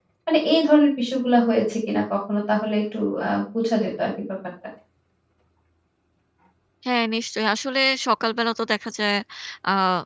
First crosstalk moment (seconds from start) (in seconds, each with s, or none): none